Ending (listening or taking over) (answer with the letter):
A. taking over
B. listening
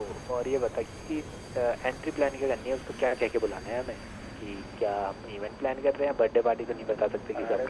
A